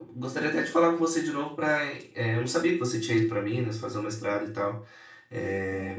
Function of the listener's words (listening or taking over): listening